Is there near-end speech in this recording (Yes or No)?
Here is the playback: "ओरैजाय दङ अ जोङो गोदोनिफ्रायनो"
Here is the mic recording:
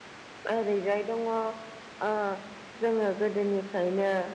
No